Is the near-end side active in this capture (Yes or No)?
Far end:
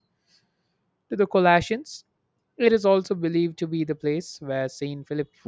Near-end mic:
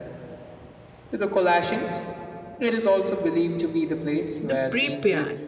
Yes